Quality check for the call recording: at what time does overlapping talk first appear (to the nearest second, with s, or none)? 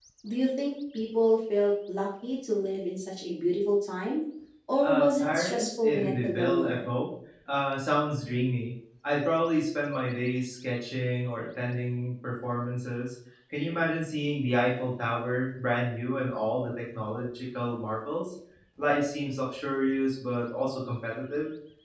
5 s